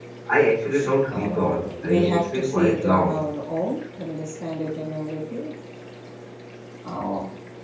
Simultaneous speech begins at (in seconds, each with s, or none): 1.1 s